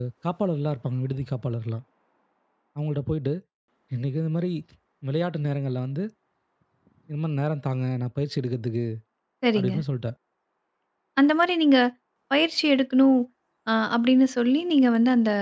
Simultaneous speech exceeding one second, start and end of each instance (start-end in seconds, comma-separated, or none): none